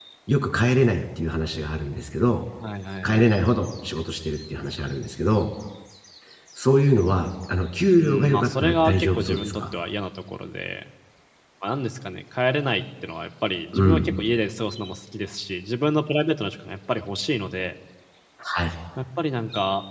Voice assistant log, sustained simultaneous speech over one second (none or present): present